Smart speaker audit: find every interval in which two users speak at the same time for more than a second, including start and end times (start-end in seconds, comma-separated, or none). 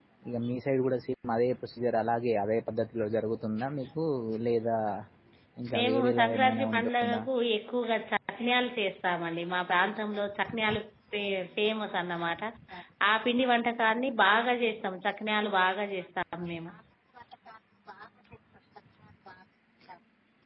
5.7-7.2